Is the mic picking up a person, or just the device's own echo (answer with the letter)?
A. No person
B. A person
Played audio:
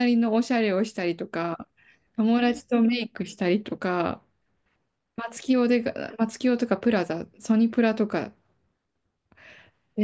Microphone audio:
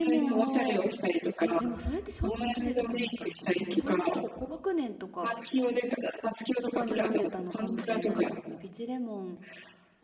B